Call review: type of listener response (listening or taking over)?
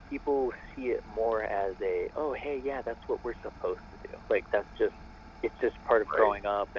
listening